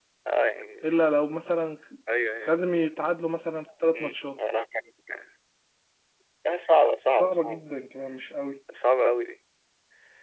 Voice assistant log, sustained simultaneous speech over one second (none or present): none